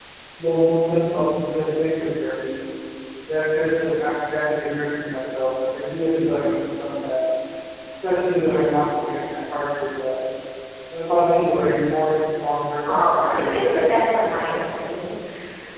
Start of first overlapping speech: 12.8 s

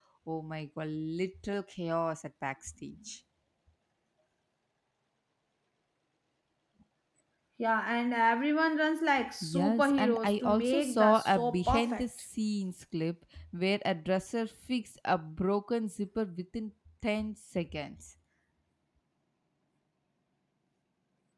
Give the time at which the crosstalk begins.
9.4 s

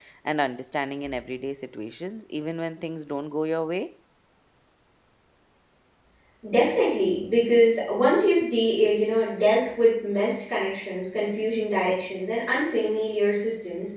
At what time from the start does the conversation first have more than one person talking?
none

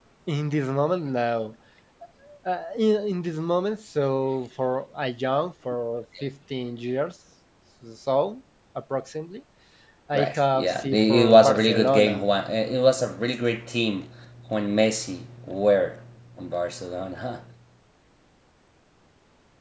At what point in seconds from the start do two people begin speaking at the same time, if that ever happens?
10.1 s

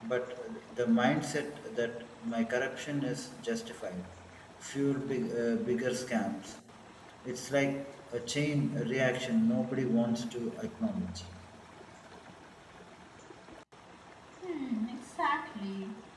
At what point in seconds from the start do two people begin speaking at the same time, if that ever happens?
none

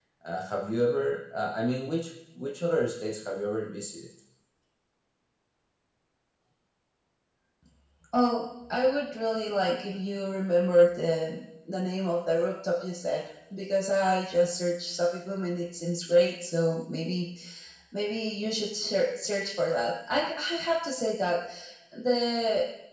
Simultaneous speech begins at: none

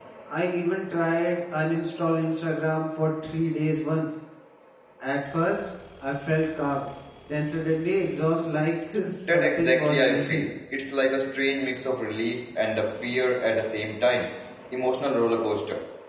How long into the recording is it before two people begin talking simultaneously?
9.3 s

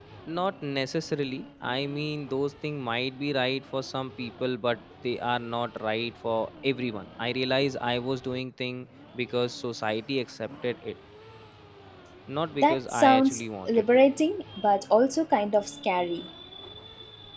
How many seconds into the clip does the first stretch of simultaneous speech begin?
12.6 s

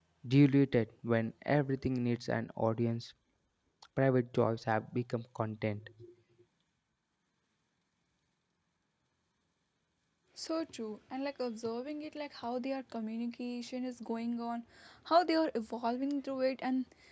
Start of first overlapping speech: none

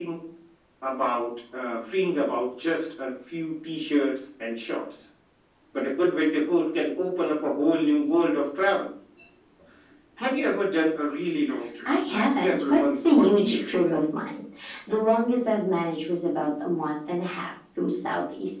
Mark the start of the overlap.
11.8 s

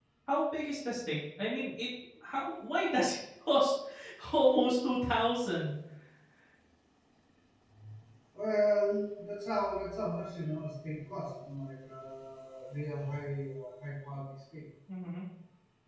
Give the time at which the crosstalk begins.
none

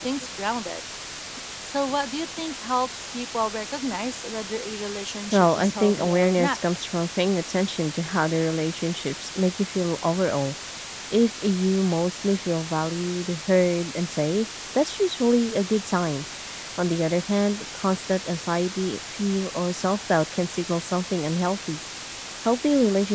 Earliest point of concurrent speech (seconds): 5.3 s

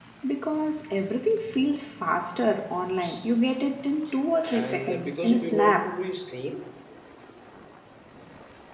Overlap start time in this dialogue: 4.4 s

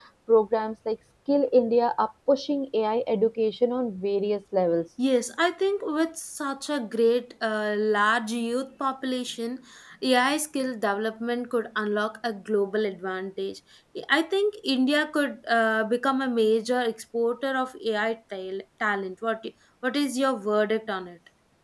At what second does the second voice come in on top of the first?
none

